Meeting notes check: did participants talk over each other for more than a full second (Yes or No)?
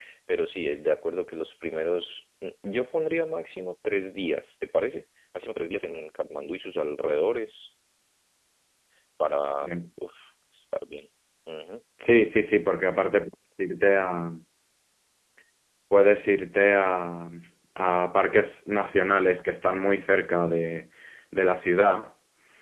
No